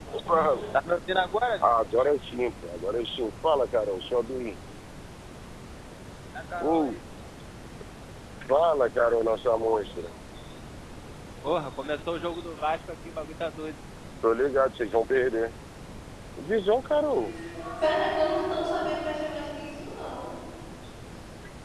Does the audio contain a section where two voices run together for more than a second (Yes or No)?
No